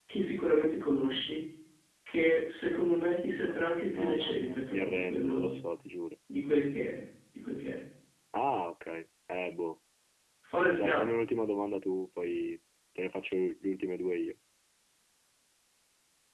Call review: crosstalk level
present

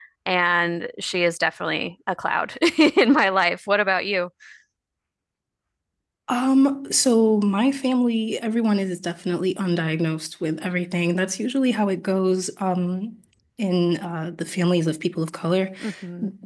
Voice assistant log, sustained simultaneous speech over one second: none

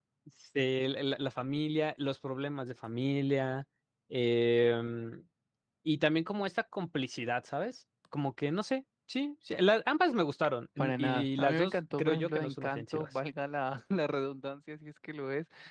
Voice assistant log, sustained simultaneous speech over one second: present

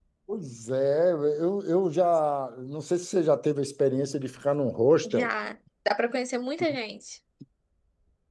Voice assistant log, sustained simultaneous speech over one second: none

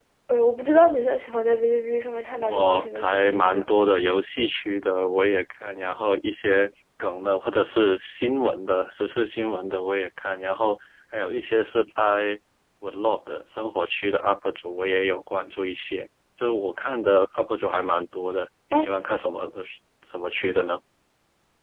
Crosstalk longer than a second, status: present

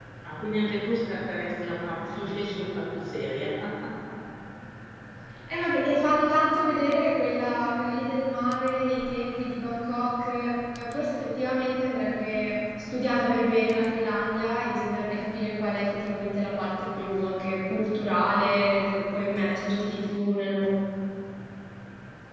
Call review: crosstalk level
none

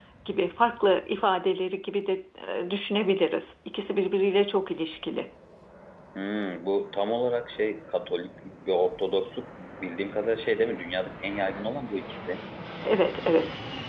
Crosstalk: none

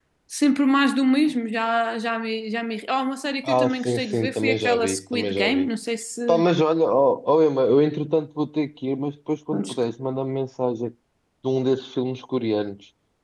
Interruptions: present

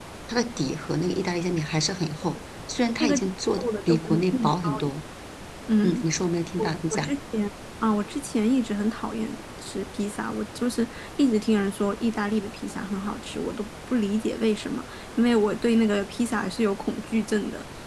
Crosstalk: present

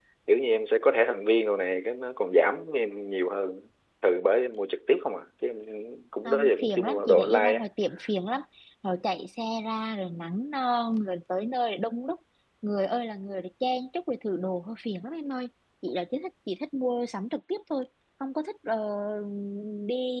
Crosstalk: present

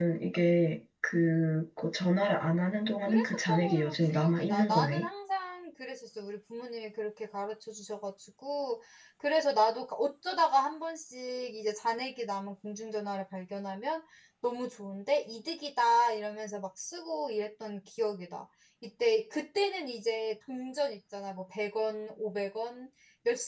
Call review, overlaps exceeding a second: present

